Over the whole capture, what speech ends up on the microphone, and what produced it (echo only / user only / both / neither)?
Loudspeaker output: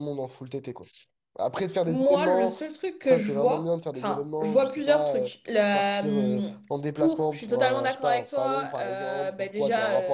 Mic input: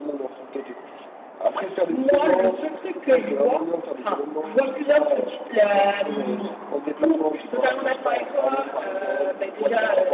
echo only